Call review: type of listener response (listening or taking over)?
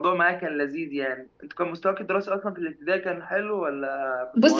taking over